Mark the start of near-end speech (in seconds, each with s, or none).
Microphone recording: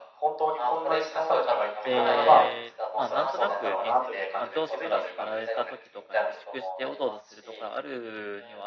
1.8 s